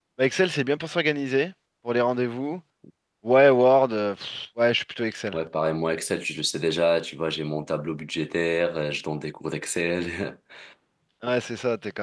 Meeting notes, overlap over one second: none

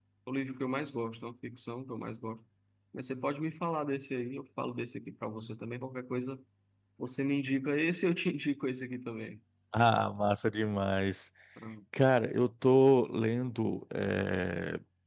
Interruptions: none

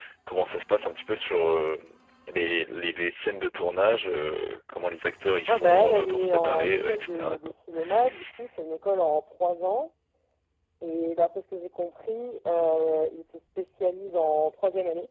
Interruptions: present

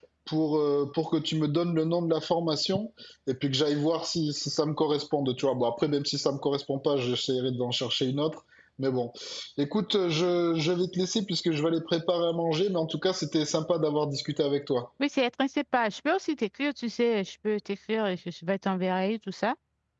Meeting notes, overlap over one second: none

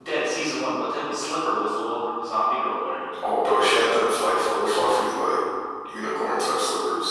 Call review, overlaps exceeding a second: none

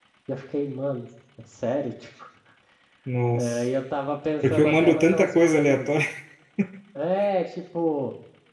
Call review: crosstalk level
present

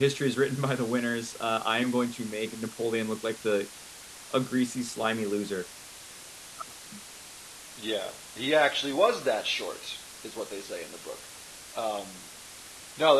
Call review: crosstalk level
none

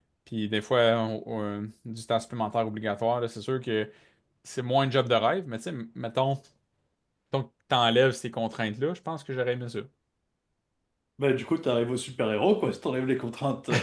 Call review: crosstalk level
none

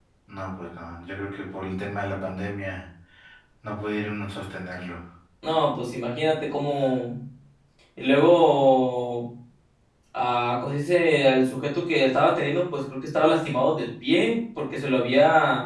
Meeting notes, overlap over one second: none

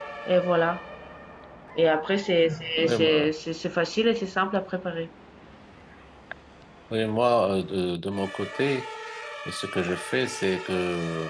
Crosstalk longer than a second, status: none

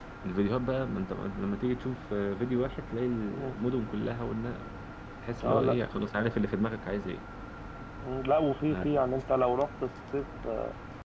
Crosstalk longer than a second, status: none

